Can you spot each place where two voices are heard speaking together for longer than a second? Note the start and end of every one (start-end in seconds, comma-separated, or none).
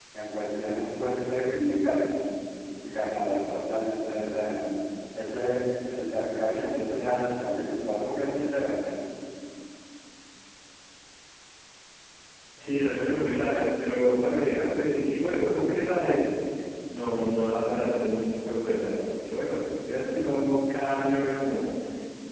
none